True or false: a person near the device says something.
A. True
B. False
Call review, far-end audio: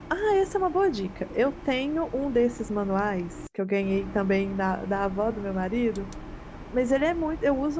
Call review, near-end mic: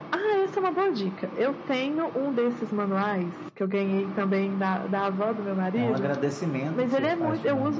A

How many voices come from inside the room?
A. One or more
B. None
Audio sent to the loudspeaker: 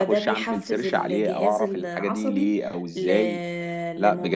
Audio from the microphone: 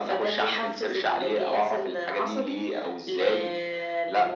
B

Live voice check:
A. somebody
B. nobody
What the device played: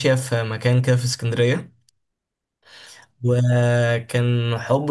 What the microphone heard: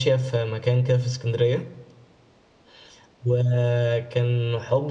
B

